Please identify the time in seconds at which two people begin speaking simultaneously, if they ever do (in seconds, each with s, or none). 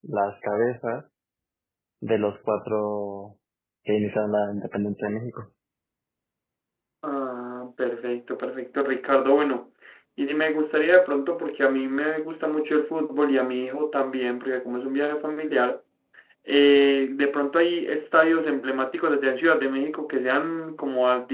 none